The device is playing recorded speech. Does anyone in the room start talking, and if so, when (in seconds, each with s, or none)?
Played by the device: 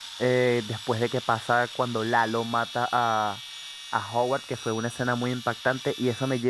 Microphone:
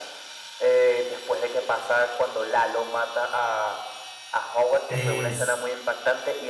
4.9 s